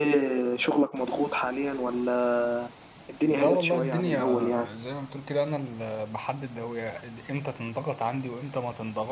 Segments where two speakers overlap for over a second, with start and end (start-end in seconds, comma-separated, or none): 3.3-4.7